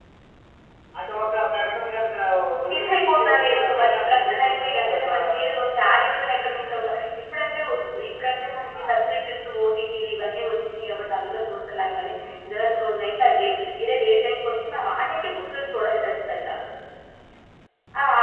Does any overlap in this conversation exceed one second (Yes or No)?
Yes